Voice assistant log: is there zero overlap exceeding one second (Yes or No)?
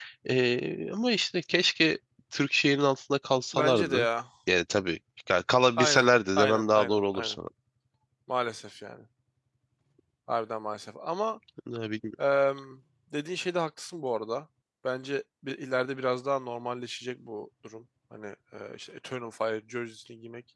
No